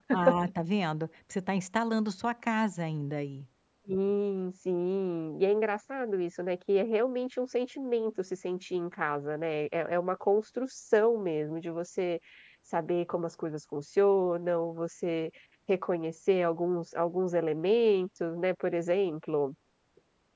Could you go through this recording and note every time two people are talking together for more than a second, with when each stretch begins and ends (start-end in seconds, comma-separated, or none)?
none